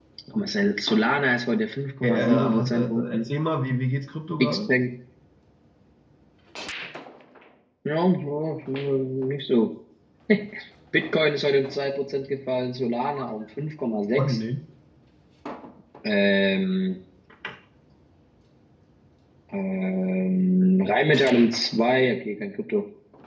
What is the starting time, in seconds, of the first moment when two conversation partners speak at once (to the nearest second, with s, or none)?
2 s